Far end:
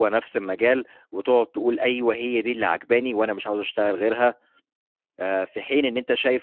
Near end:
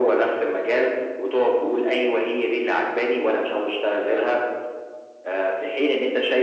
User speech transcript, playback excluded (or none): none